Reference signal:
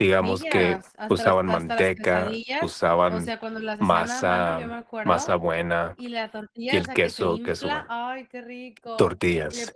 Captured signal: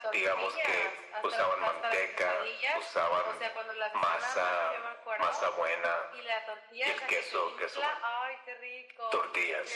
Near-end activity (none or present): none